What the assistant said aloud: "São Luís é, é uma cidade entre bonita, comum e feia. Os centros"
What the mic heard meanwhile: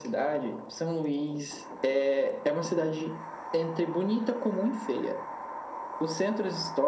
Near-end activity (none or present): none